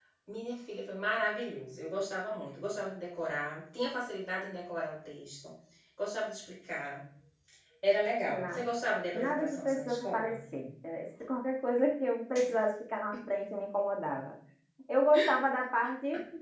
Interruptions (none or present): present